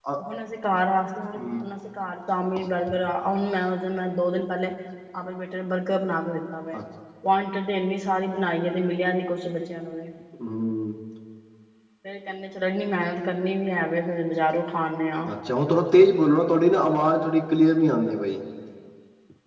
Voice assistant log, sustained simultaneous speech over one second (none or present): none